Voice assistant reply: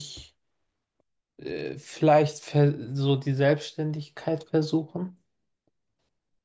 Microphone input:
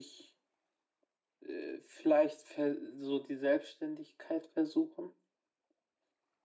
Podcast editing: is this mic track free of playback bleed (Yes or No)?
No